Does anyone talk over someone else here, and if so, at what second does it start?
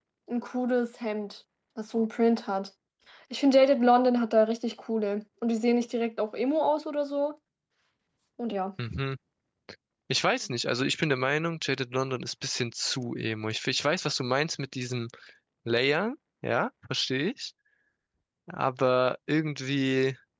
none

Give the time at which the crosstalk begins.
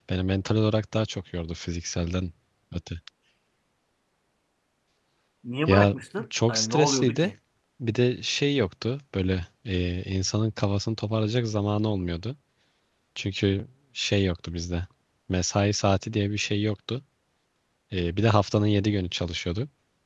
5.7 s

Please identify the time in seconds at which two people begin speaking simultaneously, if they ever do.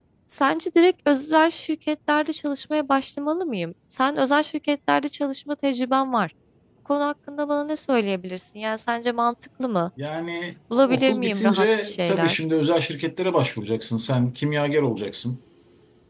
10.9 s

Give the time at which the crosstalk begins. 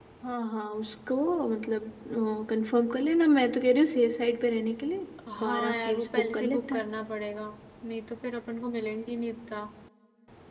5.3 s

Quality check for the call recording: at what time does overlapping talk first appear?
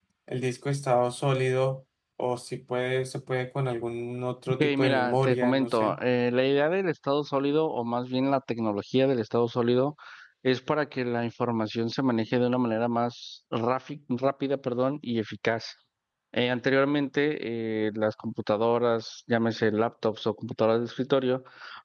4.6 s

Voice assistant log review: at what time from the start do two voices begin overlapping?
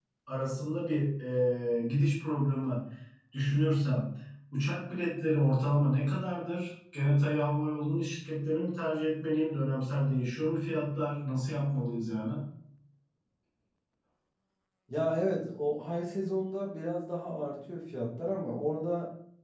none

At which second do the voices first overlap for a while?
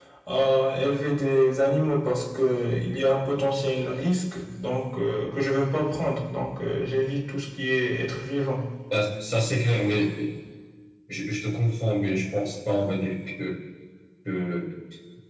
none

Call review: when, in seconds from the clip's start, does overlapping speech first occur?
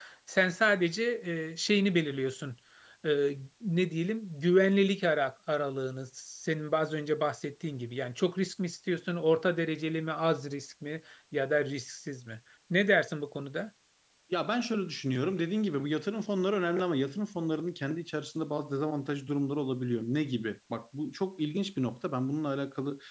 none

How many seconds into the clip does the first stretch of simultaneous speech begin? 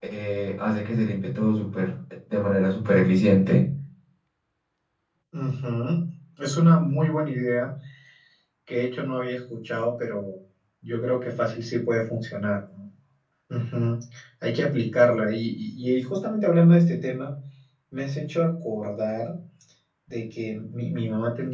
none

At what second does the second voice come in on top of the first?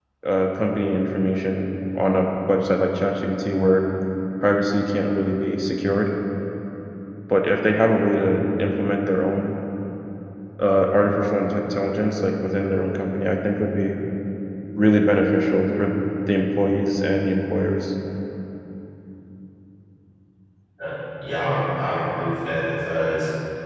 none

